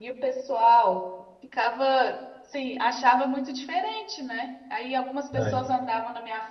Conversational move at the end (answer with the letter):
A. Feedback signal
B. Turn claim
A